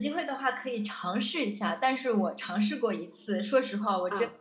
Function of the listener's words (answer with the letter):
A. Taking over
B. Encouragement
B